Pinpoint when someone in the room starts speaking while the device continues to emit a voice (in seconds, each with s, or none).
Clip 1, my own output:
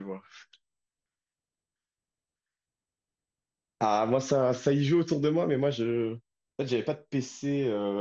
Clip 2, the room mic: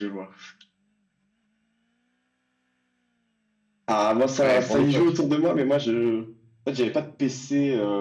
4.4 s